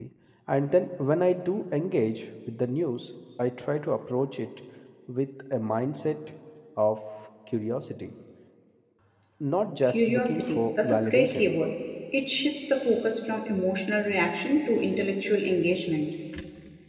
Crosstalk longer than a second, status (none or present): present